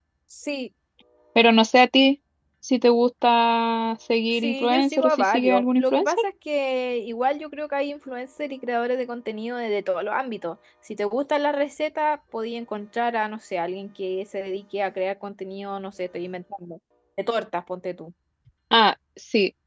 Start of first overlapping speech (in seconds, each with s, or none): 4.4 s